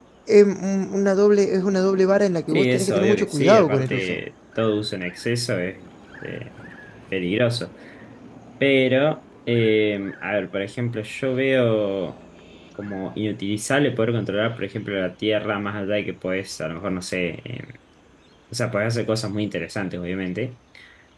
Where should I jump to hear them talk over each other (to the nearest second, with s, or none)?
3 s